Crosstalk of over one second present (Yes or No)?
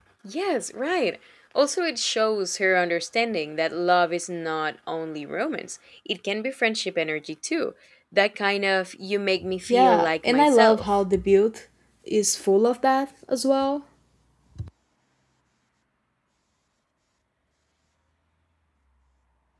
Yes